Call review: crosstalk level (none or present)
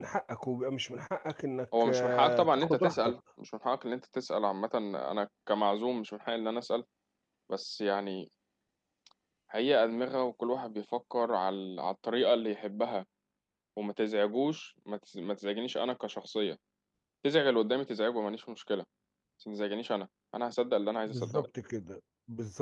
present